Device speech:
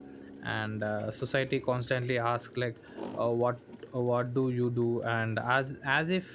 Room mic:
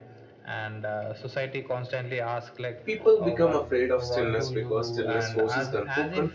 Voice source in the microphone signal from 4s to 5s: both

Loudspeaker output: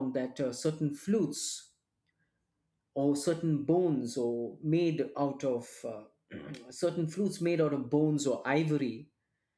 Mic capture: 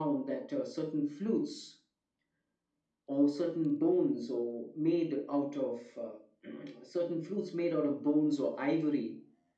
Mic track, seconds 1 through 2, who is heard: echo only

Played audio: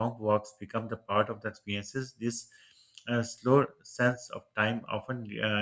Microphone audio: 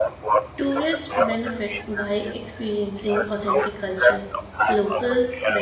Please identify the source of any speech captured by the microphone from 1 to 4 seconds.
both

